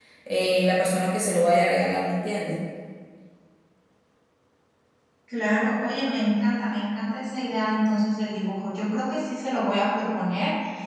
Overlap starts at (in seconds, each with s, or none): none